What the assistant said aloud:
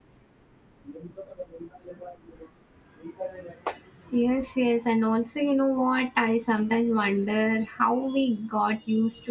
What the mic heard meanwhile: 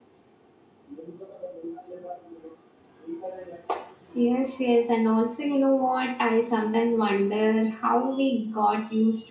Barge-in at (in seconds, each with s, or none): none